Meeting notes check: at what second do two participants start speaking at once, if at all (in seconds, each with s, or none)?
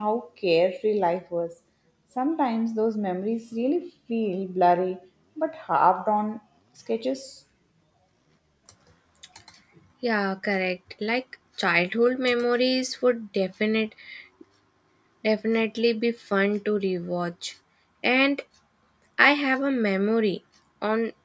none